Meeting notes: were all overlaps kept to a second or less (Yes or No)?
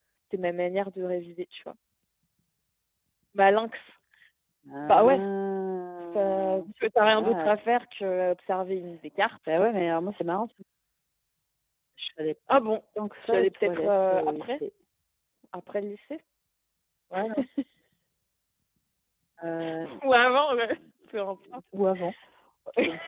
No